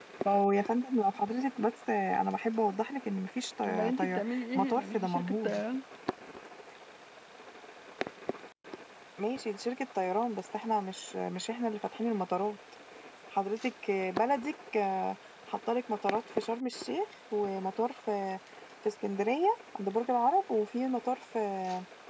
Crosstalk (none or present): present